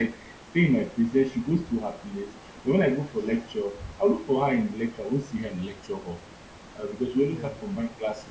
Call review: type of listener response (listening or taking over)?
listening